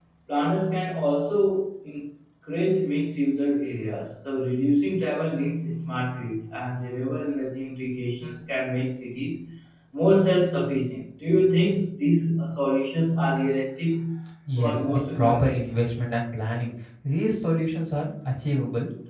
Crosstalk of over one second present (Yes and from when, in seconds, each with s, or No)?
Yes, from 14.6 s